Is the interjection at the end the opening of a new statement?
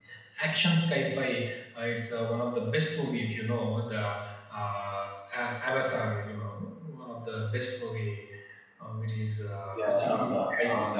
Yes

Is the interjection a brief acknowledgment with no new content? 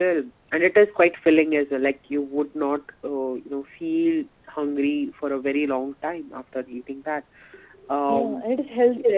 No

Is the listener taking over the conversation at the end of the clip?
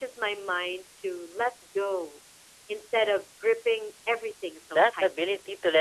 Yes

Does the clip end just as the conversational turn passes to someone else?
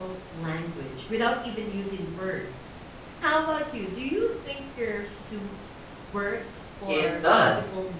Yes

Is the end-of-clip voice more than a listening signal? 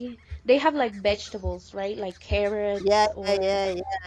Yes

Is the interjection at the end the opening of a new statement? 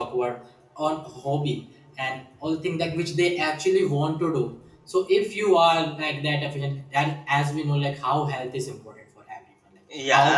No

